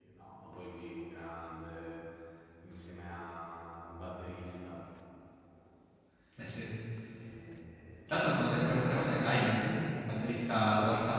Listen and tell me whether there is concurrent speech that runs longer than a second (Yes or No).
No